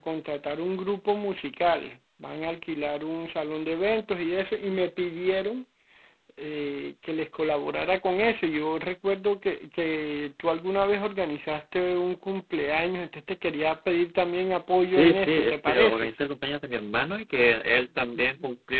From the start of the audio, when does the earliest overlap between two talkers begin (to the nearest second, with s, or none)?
15 s